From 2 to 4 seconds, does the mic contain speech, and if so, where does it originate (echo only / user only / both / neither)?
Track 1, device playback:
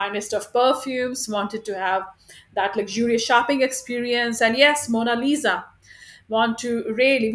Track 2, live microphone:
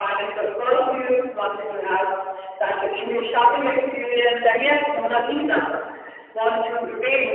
echo only